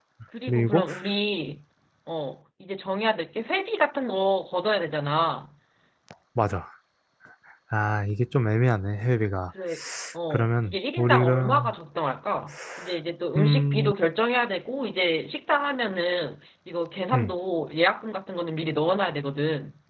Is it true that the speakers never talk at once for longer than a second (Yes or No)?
No